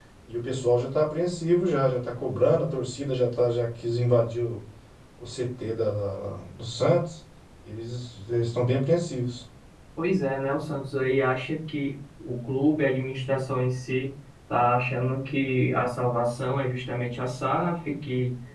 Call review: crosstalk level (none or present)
none